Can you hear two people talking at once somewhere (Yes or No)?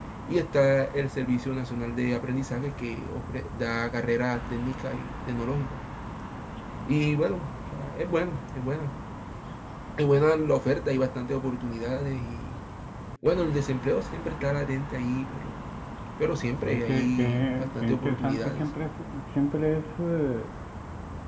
Yes